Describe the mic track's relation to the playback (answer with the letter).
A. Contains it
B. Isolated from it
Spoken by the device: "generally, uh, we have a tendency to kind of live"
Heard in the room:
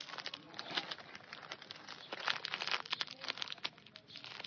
B